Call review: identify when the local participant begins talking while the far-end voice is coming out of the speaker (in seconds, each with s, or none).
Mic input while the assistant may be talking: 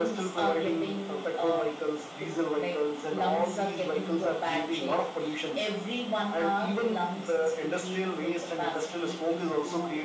none